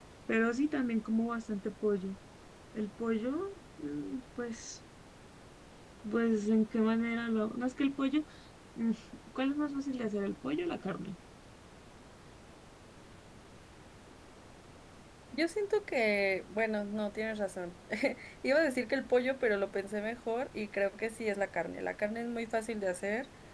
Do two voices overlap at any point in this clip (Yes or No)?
No